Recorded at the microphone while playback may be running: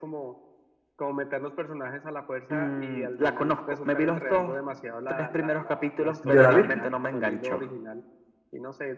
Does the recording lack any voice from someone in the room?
No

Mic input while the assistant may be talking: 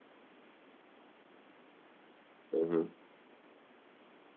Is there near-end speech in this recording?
Yes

